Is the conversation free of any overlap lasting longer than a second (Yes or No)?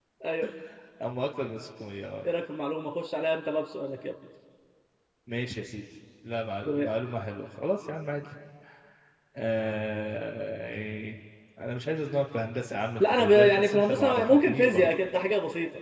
No